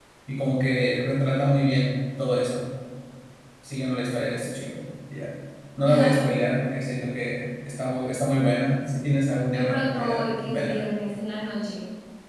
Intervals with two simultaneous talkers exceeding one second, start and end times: 9.5-10.8

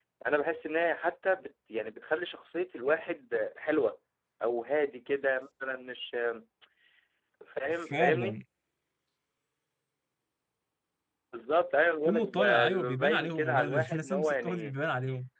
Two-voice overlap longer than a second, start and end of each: 12.0-14.7

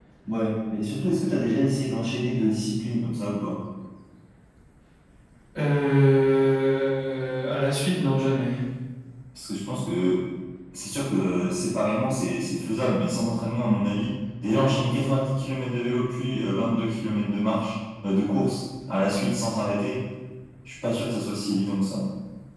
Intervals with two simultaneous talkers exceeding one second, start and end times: none

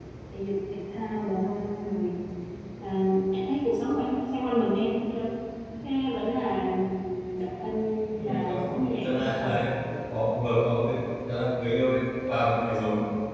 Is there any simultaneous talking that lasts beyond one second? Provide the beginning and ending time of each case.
8.2-9.5

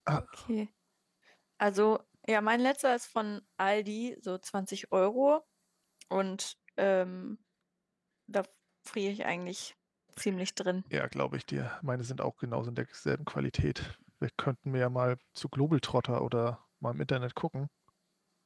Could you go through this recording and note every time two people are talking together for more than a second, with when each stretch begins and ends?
none

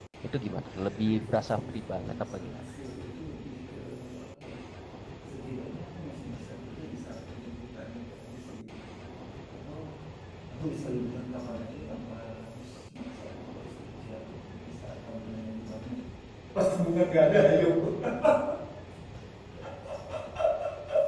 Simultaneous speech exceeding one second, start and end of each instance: 0.7-2.6

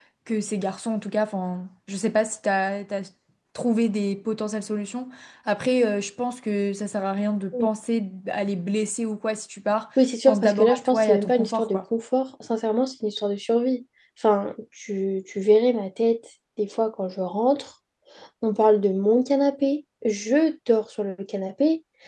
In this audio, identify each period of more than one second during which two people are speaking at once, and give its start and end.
10.2-11.8

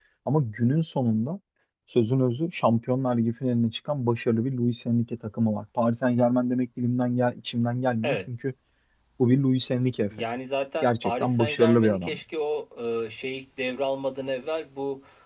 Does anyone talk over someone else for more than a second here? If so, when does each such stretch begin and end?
10.8-12.2

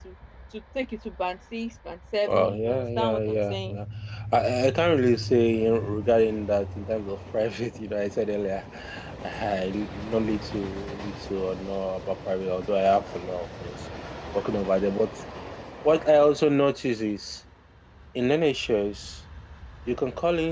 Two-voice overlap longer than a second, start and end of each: 2.2-3.8

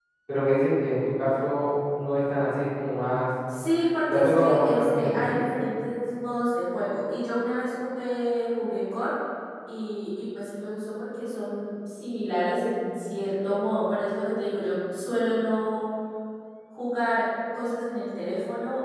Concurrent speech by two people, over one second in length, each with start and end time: 4.1-5.4

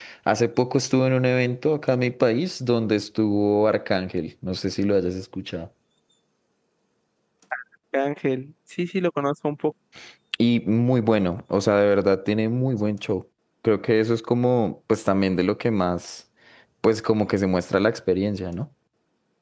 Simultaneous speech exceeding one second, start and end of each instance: none

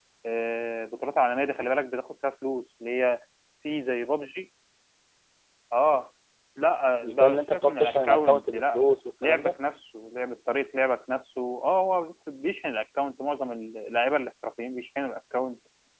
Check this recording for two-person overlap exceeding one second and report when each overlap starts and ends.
7.0-8.8

